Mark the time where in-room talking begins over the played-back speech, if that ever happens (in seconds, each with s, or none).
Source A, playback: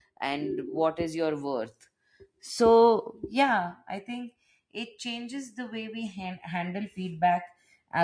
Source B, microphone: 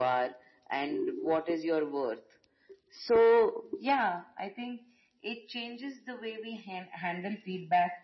none